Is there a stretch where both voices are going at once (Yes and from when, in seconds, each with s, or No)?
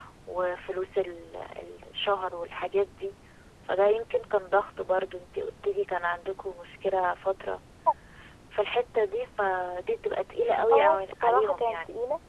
Yes, from 10.7 s